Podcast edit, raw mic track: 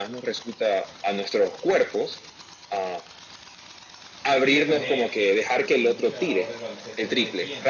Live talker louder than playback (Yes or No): No